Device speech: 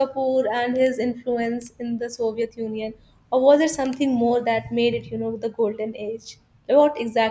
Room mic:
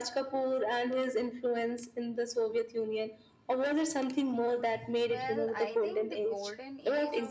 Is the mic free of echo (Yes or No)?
No